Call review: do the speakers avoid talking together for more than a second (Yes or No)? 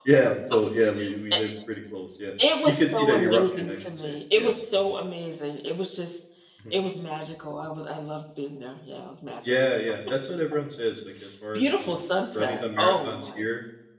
No